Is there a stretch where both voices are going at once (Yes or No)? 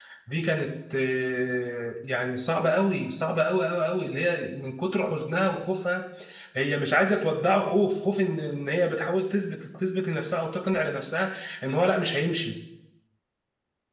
No